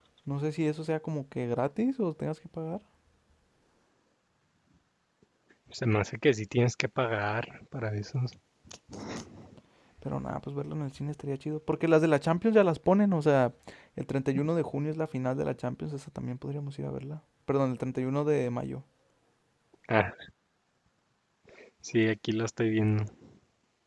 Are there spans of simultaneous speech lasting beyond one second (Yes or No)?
No